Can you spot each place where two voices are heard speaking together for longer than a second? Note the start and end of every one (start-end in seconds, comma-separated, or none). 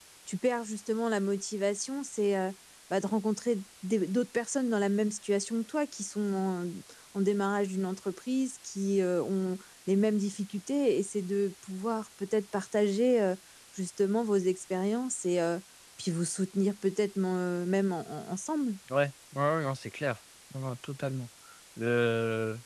none